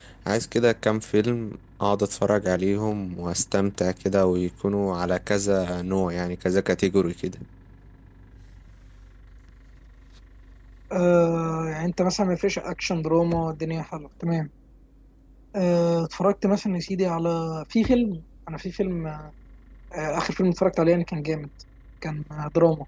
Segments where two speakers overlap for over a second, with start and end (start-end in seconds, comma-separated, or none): none